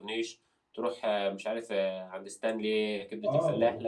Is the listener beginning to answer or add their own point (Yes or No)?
Yes